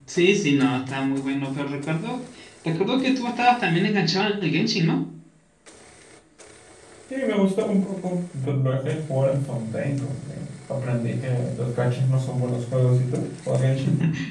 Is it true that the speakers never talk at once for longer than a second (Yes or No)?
Yes